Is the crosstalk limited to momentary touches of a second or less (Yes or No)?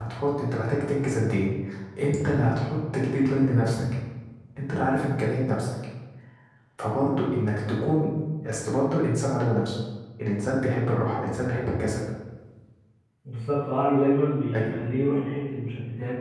Yes